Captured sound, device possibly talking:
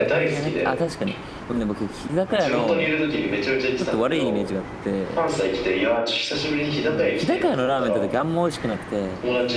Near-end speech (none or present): present